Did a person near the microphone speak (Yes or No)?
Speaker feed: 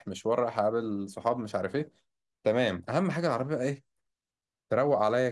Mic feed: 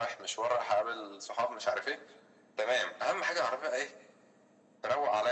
No